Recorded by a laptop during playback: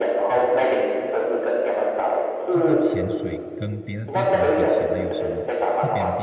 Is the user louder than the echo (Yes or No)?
No